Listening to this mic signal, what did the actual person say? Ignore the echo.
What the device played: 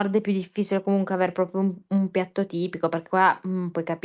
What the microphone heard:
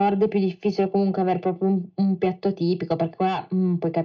none

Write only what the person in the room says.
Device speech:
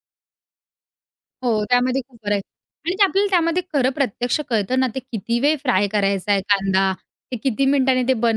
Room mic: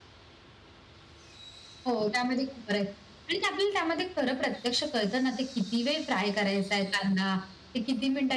none

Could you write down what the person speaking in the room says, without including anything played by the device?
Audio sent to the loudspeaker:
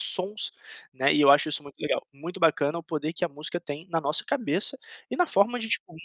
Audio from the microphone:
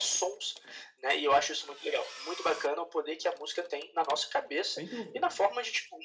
Sem dúvida.

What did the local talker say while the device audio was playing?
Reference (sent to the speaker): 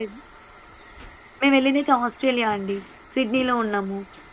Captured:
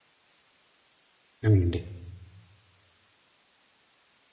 అవునండి.

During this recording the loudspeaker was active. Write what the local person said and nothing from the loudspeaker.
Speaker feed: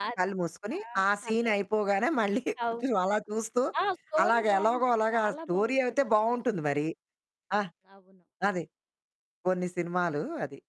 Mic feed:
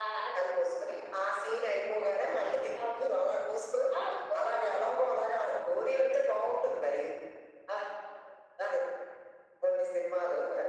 none

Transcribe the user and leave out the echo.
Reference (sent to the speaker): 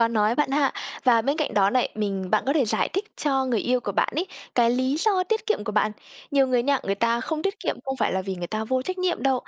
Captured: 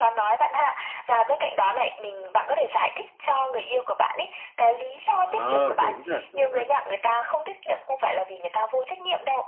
Ờ, đúng thật, đúng thật.

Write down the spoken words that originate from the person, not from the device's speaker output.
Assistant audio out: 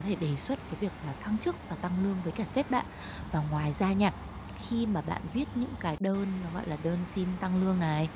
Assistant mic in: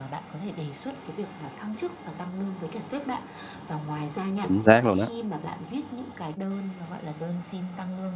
Chính xác luôn á.

